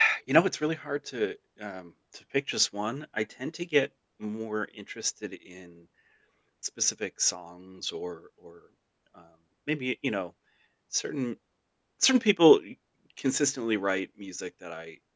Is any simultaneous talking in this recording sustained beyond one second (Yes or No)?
No